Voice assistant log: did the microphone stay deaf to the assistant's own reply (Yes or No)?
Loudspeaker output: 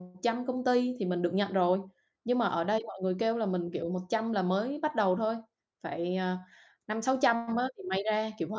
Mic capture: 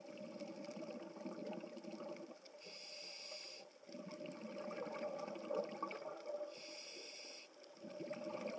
Yes